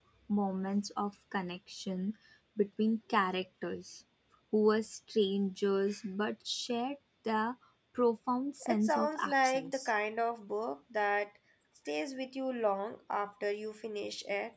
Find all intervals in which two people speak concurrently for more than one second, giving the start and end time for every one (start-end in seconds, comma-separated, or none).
8.7-9.9